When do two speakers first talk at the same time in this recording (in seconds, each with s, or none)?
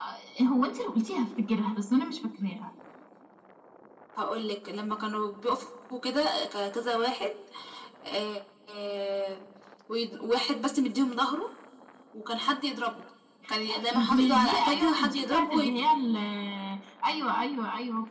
13.7 s